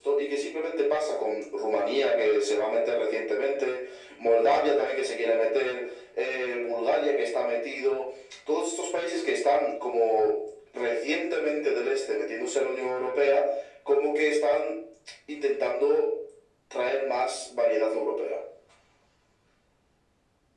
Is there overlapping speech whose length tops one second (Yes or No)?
No